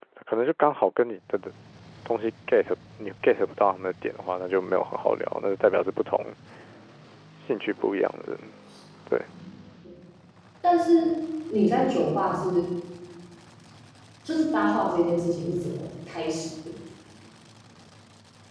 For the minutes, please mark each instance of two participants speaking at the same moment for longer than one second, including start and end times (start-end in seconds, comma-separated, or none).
none